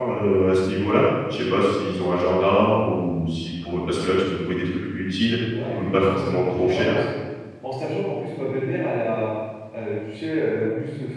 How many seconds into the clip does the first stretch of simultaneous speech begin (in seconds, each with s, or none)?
5.5 s